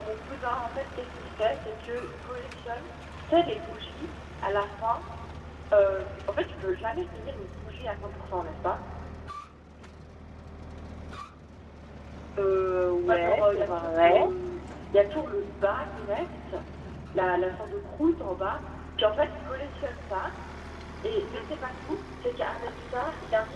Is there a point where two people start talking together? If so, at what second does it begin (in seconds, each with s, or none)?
13.0 s